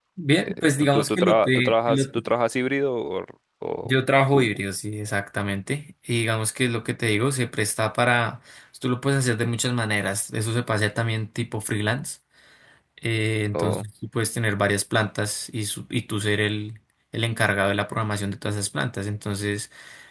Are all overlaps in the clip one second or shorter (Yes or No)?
No